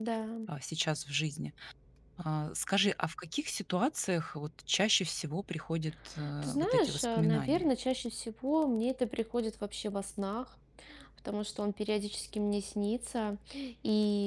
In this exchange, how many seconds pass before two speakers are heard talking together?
6.2 s

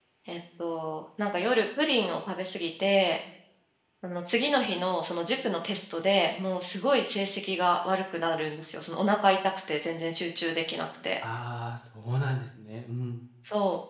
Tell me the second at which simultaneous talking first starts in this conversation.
none

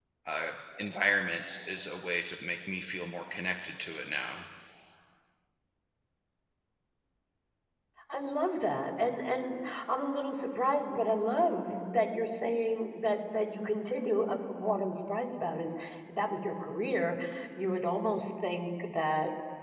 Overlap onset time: none

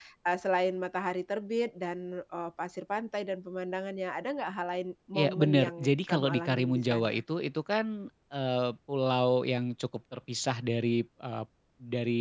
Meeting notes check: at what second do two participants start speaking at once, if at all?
5.1 s

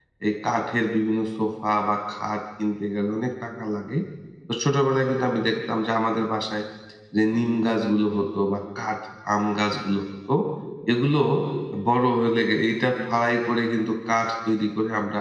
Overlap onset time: none

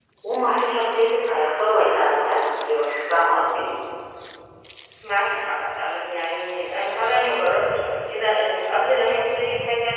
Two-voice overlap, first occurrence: none

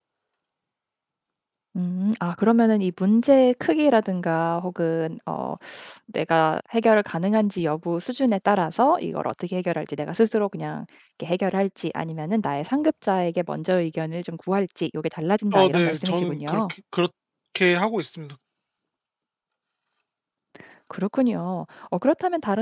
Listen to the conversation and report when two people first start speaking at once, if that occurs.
15.5 s

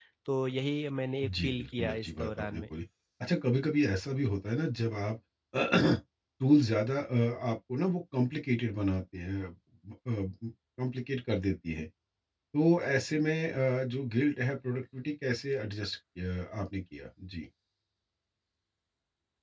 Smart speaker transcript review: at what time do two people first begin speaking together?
1.2 s

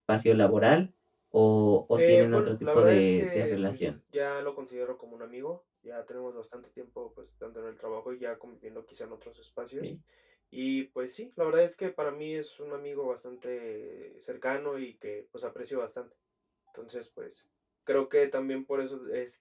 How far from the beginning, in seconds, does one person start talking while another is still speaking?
2.0 s

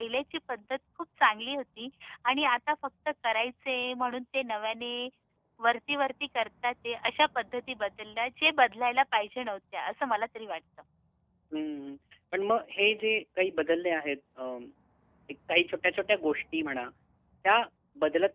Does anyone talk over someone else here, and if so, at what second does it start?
none

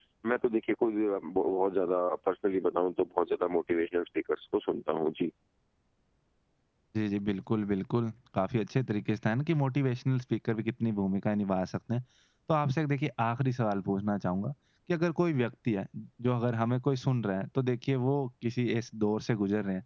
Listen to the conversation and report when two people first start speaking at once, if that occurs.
none

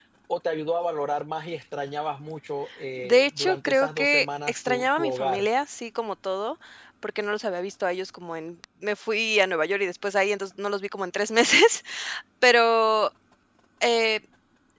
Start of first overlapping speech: 3.0 s

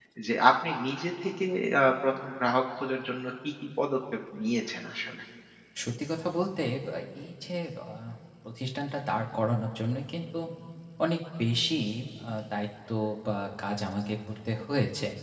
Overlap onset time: none

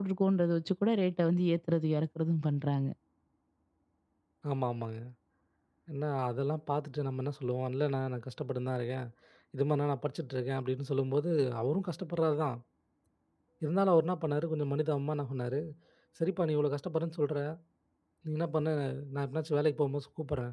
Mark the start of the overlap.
none

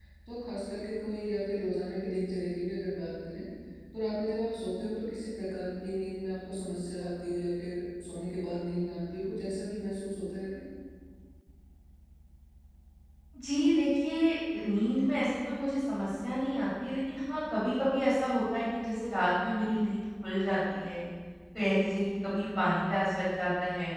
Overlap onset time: none

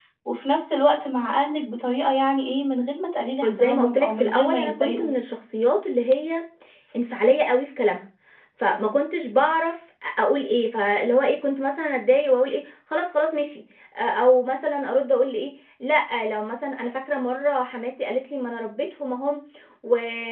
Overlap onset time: 3.4 s

